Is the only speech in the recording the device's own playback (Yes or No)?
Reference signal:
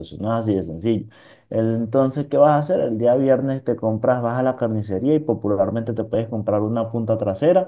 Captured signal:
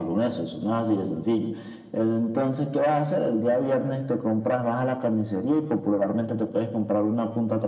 Yes